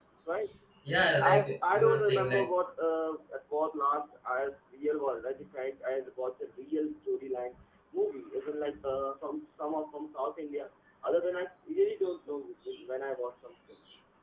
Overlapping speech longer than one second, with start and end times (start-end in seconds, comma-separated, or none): 1.2-2.5